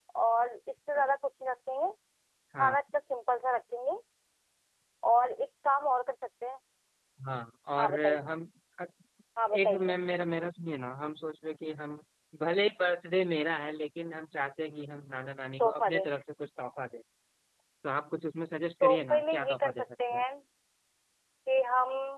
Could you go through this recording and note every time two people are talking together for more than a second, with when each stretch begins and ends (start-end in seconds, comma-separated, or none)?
18.8-20.2